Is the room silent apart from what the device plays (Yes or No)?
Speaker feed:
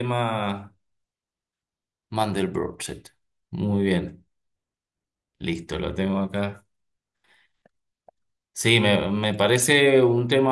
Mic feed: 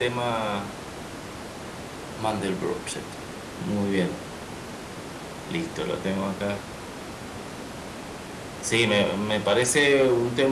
Yes